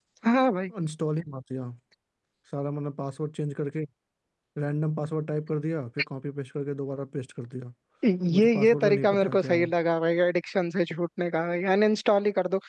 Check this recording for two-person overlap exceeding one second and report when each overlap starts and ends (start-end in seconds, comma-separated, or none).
8.3-9.7